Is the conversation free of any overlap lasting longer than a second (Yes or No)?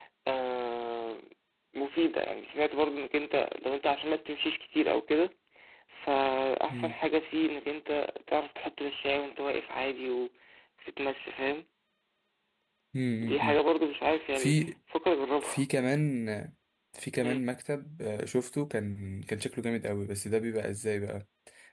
Yes